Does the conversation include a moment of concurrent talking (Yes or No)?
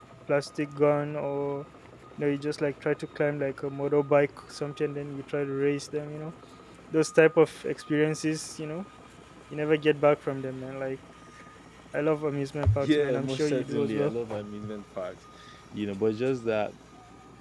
Yes